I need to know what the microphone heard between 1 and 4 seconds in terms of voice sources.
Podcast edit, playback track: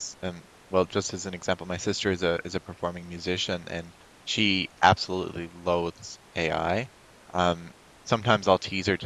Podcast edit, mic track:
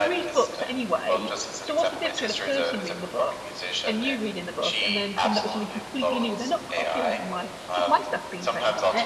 both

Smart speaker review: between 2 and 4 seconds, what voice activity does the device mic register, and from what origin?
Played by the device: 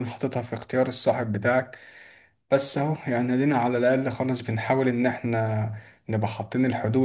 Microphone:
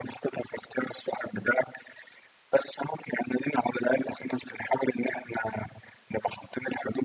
echo only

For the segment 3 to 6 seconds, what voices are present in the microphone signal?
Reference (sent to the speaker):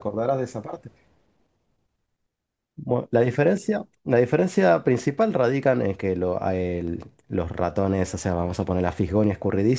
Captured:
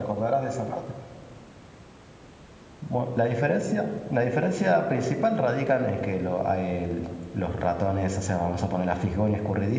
echo only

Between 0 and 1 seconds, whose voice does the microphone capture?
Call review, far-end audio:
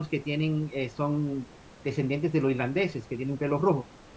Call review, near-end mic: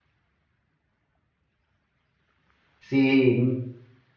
neither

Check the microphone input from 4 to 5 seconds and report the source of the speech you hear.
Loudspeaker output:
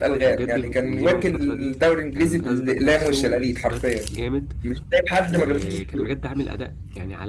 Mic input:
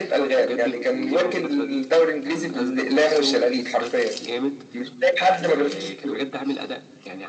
echo only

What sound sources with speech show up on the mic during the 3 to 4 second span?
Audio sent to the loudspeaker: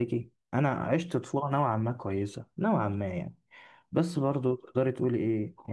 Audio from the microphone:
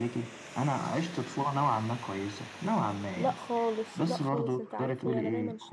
both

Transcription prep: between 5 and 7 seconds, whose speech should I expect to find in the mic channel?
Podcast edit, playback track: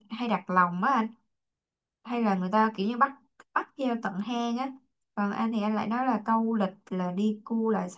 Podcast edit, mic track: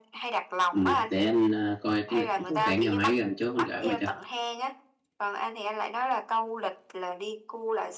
echo only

